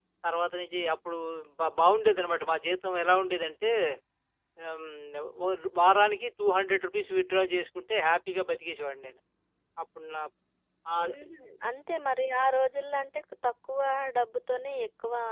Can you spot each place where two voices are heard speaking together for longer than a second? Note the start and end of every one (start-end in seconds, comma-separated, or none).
none